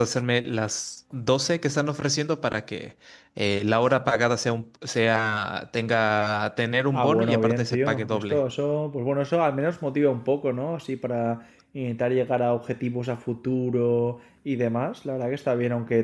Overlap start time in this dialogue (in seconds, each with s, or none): 6.9 s